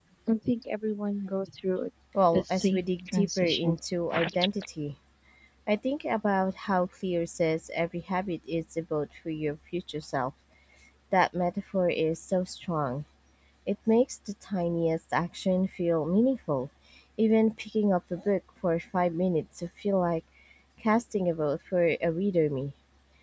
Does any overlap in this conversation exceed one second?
Yes, from 2.3 s

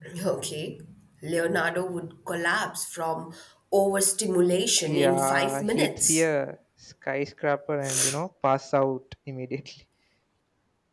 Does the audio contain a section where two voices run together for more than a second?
Yes, from 4.9 s

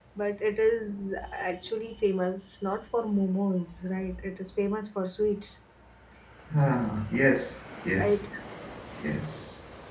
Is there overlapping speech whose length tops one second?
No

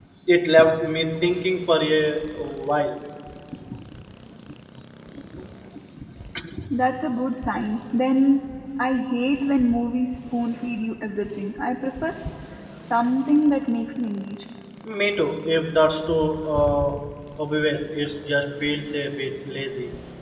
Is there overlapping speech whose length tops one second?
No

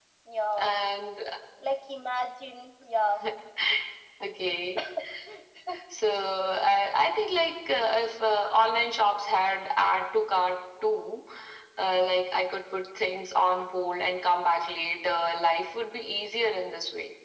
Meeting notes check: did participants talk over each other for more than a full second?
No

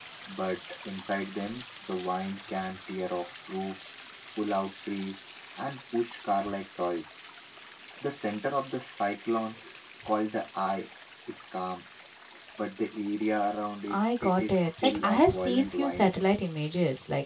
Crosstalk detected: Yes, from 13.9 s

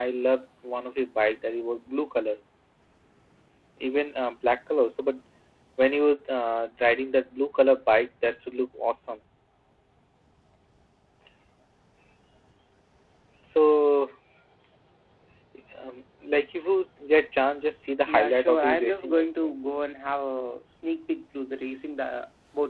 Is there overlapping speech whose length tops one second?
Yes, from 18.0 s

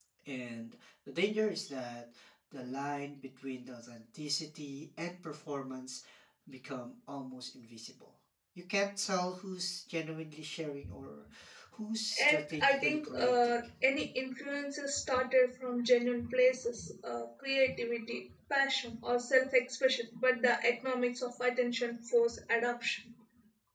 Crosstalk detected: Yes, from 12.2 s

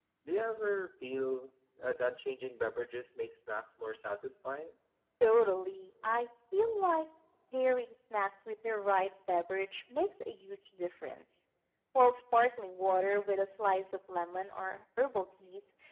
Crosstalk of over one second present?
No

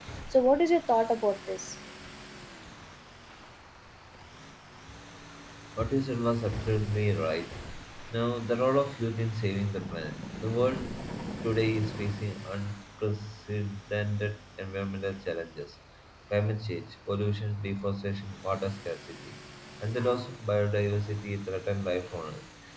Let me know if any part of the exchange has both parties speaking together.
No

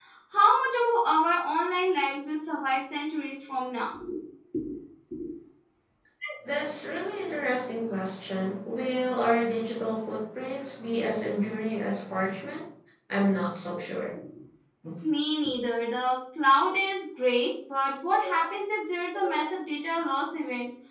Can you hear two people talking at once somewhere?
No

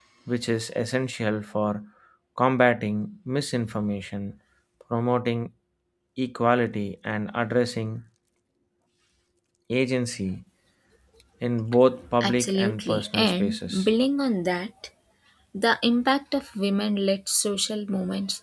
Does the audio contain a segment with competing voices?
Yes, from 12.2 s

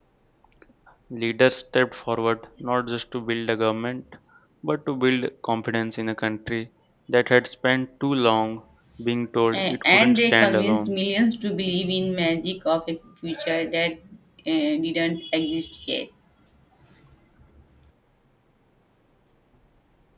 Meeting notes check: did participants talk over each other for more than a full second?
Yes, from 9.5 s

